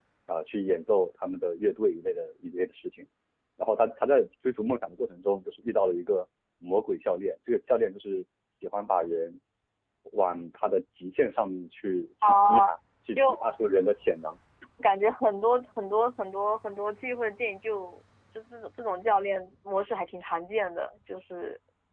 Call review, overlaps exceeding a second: none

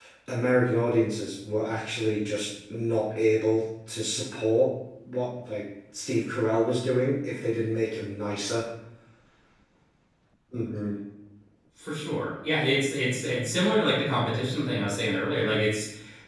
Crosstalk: none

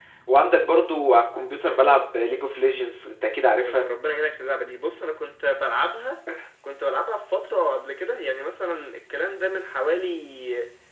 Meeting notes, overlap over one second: none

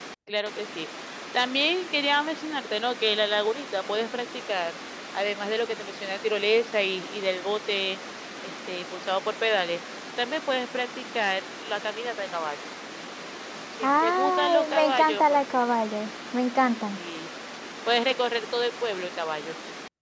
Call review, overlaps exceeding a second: present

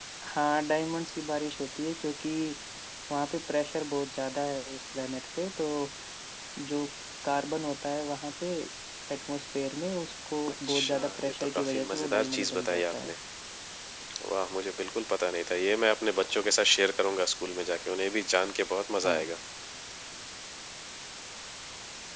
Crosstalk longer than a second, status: present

